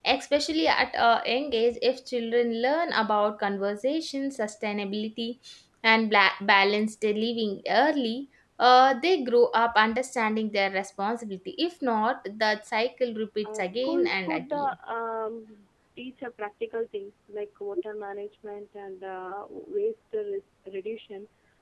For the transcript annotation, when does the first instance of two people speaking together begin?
13.4 s

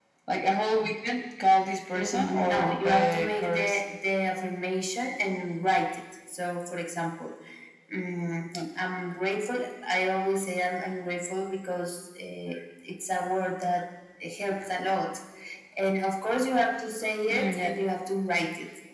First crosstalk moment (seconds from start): 1.9 s

